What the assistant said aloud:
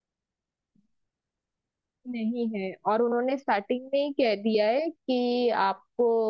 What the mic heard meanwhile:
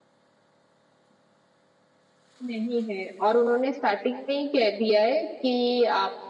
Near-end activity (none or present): none